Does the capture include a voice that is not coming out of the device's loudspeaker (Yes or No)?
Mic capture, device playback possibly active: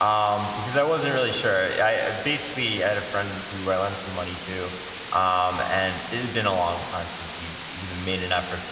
Yes